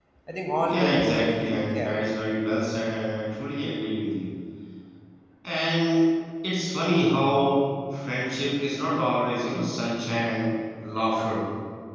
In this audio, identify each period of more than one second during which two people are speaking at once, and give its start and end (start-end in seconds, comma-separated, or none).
0.7-2.0